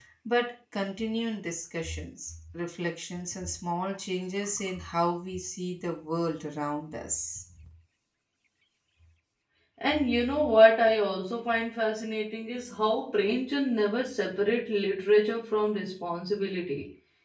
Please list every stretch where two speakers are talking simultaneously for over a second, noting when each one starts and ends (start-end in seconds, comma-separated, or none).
none